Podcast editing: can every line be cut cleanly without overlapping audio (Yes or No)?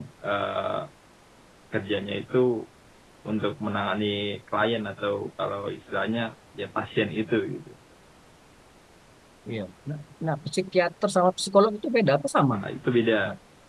Yes